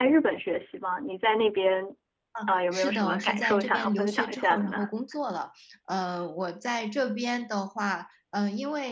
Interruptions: present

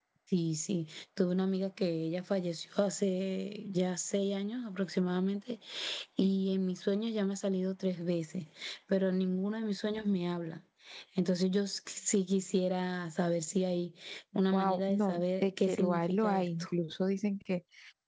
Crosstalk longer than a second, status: present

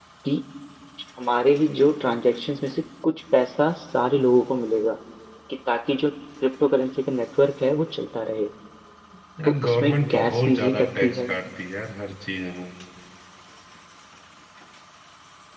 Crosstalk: present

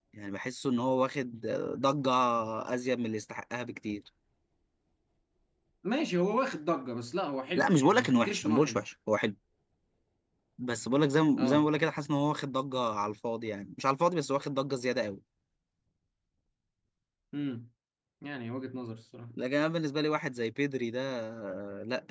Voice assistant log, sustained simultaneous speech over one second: present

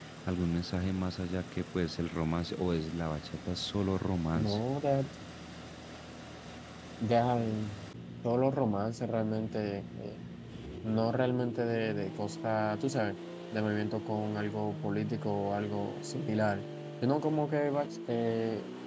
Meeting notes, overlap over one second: none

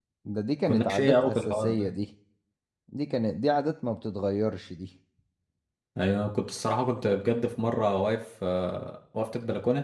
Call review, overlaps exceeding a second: present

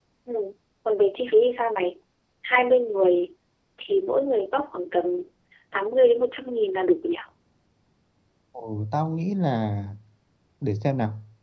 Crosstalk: none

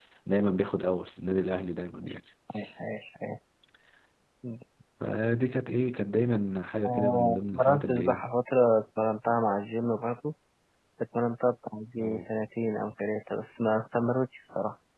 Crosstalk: present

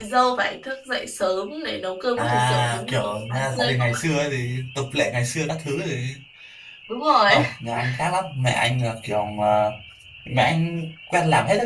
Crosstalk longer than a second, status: present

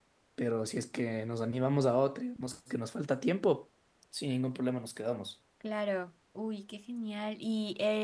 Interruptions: none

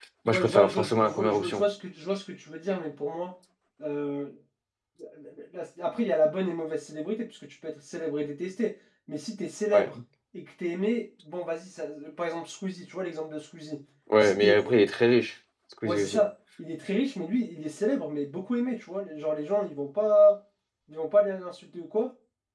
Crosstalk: present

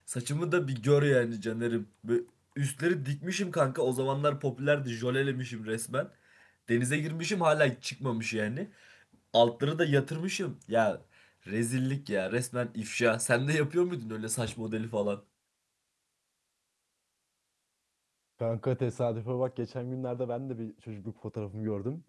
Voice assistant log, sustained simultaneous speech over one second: none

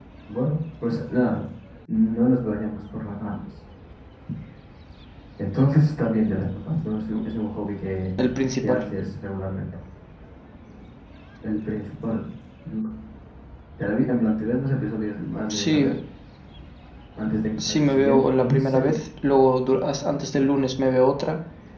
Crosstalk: present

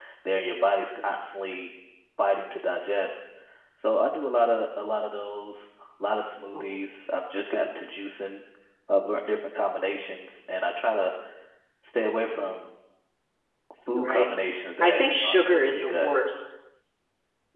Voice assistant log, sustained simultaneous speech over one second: present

